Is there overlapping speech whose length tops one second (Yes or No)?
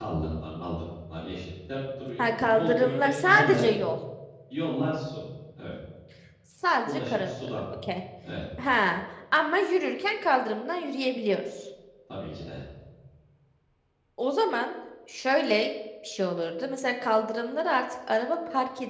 Yes